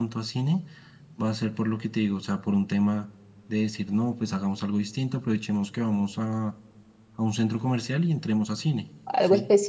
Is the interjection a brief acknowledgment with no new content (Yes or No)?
No